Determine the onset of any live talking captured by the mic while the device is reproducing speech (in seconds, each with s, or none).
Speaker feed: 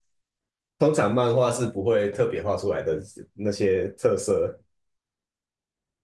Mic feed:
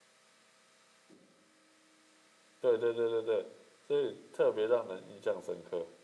2.6 s